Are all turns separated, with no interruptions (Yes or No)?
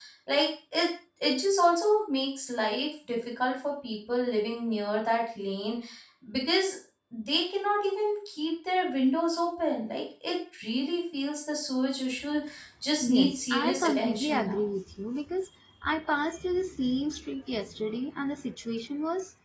No